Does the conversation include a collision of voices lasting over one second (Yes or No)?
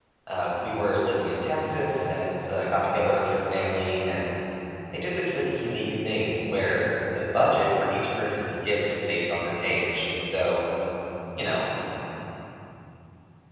No